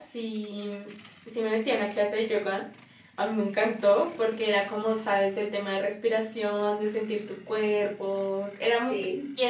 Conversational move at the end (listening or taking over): listening